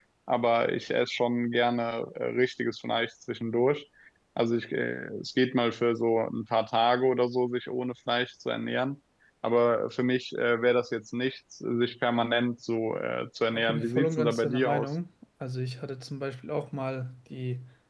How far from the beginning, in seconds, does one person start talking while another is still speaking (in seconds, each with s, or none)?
13.5 s